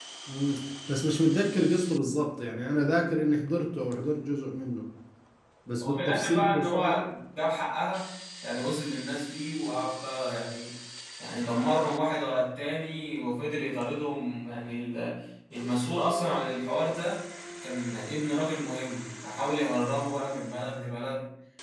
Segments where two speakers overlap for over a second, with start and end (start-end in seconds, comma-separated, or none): 5.8-7.0